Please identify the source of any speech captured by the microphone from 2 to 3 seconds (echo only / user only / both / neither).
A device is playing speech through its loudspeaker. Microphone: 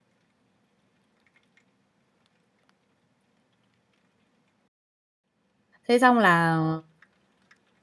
neither